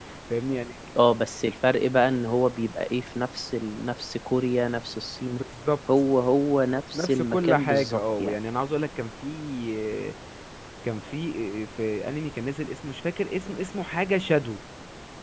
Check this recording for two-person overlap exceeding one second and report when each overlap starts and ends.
6.9-8.4

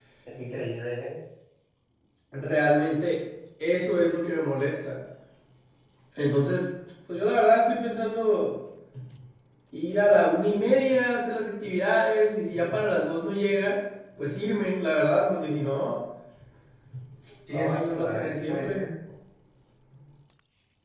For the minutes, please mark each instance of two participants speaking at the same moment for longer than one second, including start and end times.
17.5-18.8

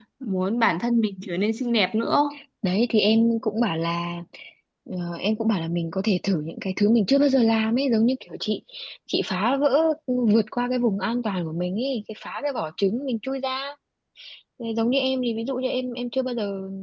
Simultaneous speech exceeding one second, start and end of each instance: none

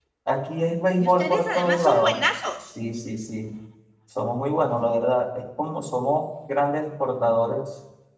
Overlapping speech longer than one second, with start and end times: 1.0-2.2

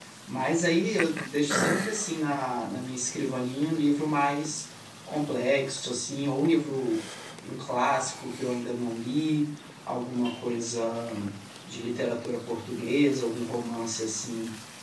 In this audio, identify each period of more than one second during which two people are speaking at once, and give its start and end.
none

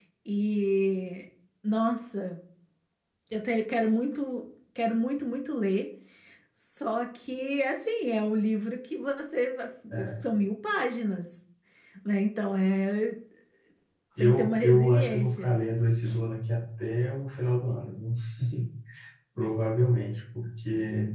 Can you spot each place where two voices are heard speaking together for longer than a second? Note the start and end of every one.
14.2-15.5

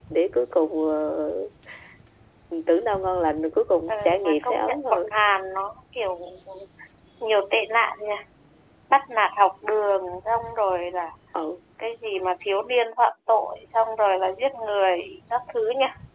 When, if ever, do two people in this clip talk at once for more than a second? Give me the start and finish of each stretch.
3.9-5.1

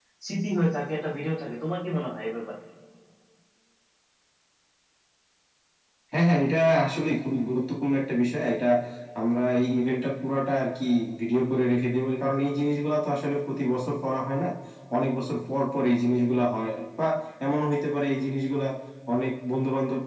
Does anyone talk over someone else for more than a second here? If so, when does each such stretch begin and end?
none

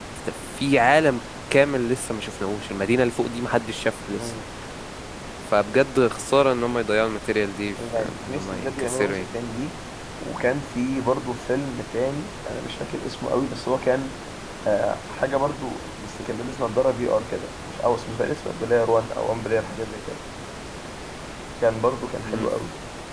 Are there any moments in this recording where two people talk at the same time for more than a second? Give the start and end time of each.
8.0-9.3

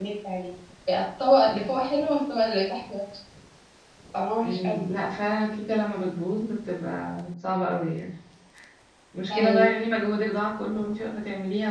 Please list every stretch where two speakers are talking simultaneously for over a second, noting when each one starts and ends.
none

